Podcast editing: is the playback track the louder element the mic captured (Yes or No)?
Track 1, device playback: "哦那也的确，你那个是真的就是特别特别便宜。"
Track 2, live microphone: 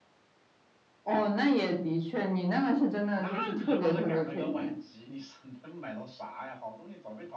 Yes